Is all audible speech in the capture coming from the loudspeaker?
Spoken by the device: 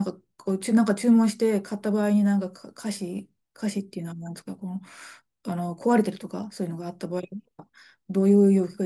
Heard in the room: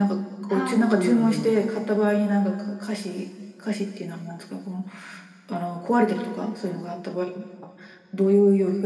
No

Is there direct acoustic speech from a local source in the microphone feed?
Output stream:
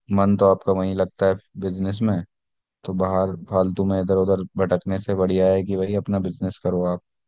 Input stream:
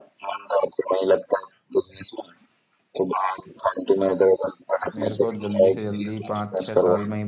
Yes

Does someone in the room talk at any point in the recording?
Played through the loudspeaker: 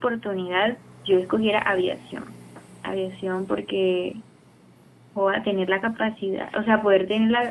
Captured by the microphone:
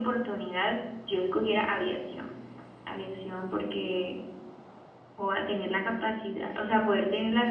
No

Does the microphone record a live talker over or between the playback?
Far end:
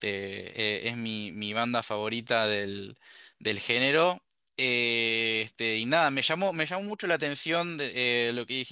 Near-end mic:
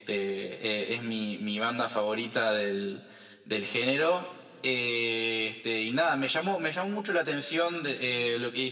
No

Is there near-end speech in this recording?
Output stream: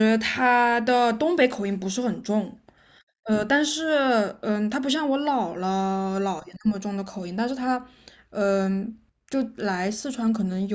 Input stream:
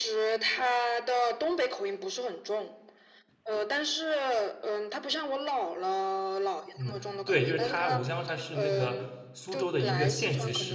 Yes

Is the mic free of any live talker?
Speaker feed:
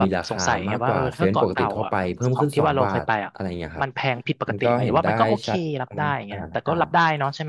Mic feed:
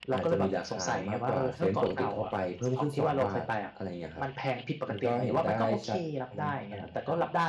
Yes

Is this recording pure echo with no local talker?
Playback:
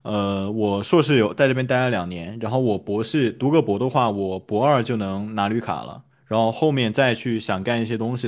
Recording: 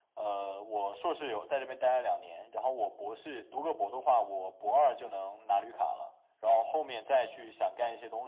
Yes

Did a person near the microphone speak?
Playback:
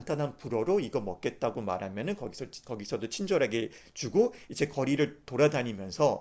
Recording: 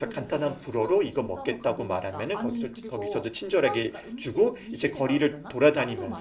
Yes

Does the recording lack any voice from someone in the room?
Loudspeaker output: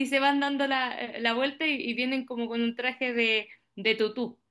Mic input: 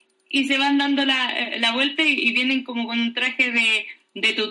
Yes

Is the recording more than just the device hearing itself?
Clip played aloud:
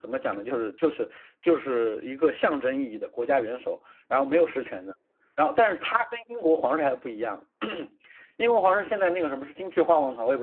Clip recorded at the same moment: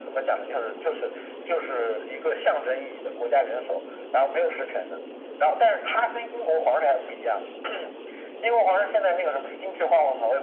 No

